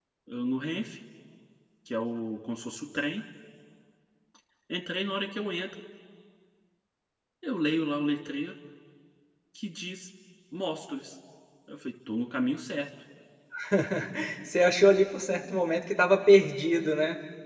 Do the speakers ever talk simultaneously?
No

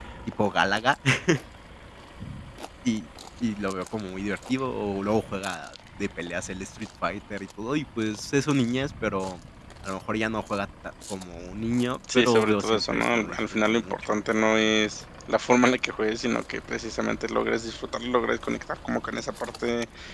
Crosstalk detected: Yes, from 12.0 s

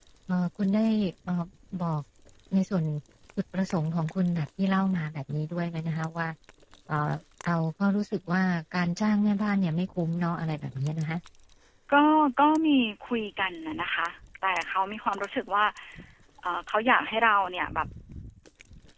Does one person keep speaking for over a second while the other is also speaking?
No

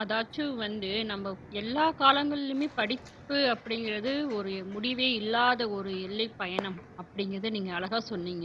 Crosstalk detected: No

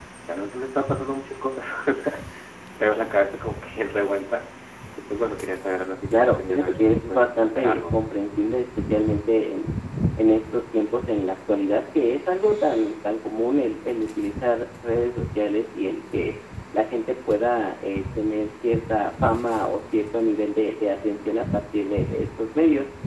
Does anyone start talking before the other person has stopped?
Yes, from 6.1 s

